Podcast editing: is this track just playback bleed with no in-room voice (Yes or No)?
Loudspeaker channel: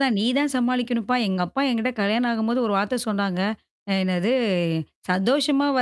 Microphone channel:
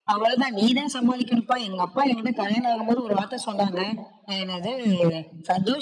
Yes